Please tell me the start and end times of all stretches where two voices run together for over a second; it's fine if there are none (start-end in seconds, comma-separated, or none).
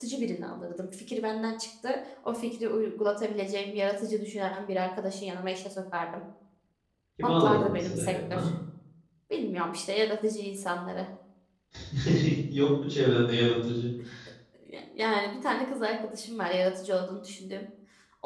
7.2-8.5